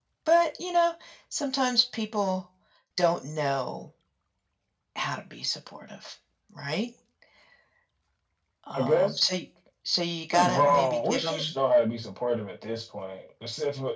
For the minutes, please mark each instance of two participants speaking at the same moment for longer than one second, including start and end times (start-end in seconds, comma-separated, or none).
10.3-11.5